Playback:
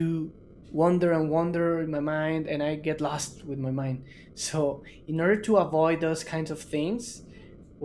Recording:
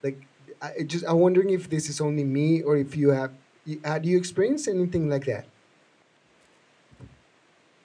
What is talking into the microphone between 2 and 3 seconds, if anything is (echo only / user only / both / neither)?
user only